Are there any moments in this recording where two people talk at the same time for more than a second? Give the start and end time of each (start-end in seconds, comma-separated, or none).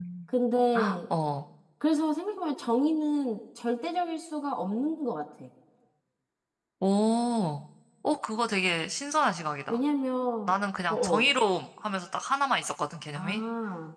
none